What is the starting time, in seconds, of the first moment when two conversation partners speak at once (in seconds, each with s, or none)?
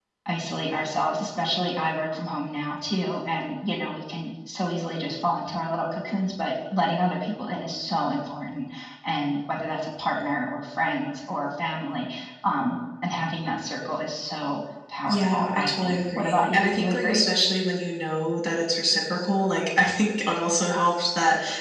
15.1 s